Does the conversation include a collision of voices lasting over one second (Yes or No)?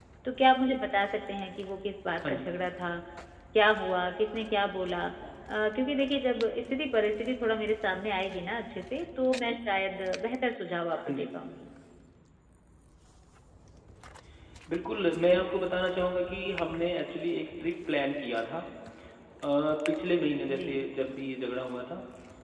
No